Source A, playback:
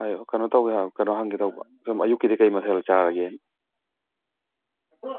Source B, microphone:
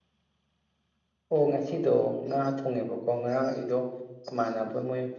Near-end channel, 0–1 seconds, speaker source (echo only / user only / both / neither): neither